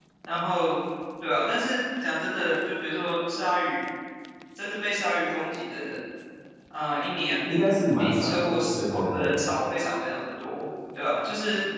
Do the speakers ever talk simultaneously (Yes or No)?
Yes